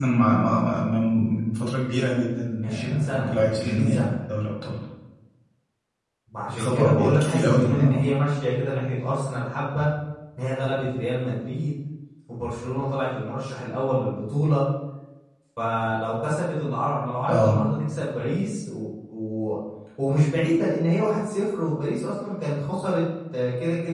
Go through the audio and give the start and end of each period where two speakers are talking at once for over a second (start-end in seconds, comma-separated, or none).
2.6-4.2, 6.5-8.1